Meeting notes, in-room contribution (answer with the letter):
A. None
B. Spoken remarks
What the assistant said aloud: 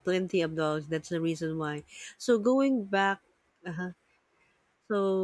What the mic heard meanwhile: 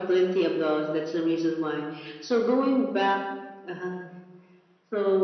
A